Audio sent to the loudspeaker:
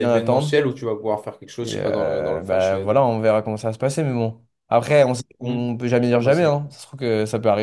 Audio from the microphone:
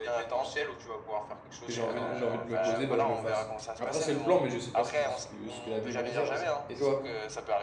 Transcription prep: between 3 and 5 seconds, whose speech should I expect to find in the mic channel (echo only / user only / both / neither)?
both